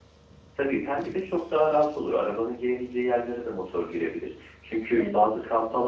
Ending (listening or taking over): listening